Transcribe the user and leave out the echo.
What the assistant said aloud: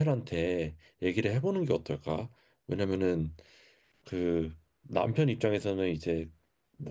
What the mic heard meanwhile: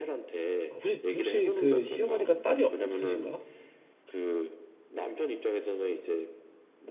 아, 혹시 혹시 그 시어머니가 딸이 없으신가?

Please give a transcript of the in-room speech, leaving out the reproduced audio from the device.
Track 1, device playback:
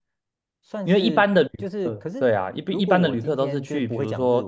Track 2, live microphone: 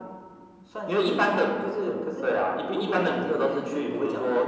none

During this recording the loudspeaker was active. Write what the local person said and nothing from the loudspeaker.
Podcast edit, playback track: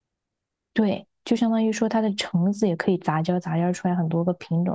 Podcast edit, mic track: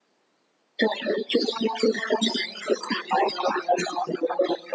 none

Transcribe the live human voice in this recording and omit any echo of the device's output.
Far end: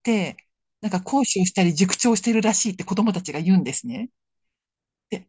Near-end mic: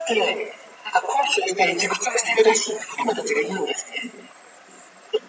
none

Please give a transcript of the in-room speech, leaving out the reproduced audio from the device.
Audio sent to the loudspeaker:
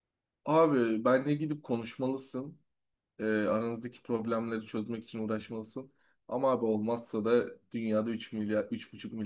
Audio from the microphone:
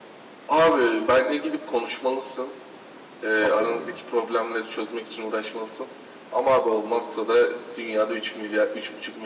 kapladı beni.

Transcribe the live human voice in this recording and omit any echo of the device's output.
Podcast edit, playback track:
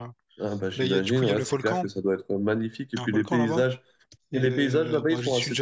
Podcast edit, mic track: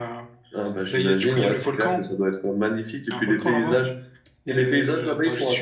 none

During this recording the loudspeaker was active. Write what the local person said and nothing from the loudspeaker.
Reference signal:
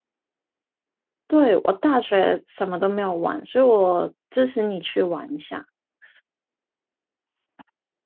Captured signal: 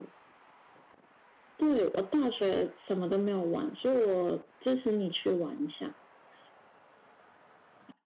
none

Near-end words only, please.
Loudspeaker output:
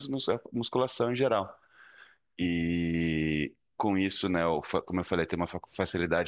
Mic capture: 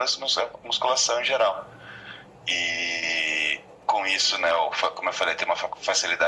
none

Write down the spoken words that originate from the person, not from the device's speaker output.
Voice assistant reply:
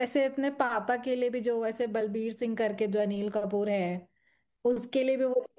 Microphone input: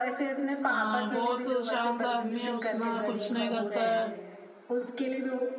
आ, बहुत शांत आदमी है उतना कुछ नहीं करता है

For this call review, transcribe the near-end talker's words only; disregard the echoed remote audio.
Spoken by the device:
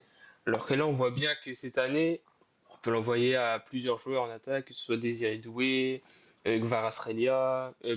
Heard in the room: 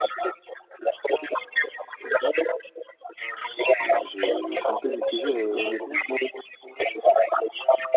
Euh, Je, je suis un peu mitigé, euh, honnêtement,

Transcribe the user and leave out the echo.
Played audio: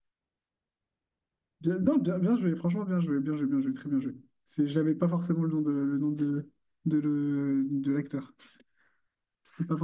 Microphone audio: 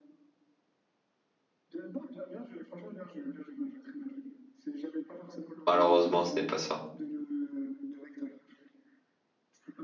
Malheureusement, ce n'est pas ça.

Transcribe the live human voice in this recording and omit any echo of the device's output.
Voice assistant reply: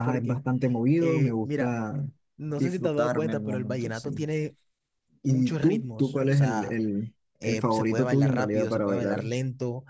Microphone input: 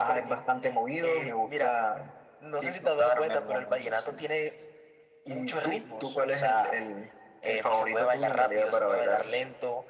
none

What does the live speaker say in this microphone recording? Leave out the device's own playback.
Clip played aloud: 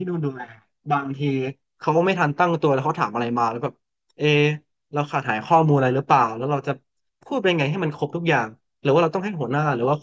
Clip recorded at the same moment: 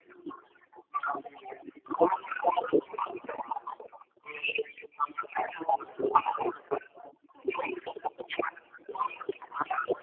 none

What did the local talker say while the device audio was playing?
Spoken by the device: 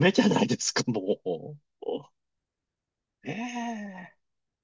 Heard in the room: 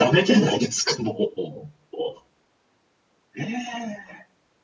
none

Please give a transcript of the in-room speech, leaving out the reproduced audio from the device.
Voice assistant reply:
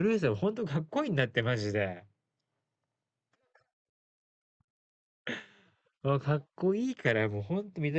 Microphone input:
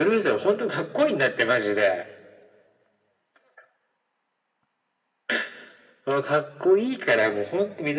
none

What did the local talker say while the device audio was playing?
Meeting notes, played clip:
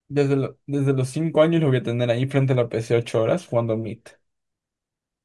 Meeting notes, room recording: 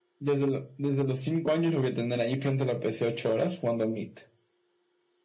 none

